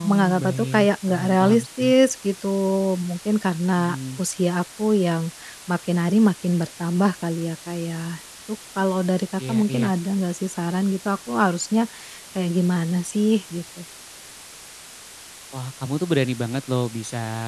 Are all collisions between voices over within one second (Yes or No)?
No